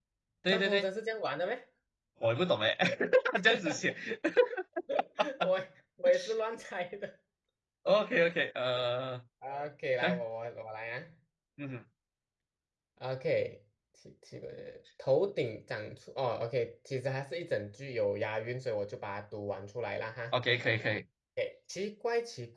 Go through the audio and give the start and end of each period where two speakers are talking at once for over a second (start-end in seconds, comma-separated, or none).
none